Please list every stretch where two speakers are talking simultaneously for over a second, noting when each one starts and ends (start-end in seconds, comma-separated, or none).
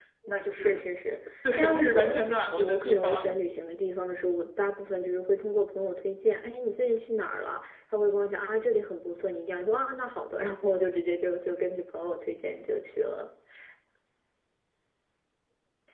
1.6-3.4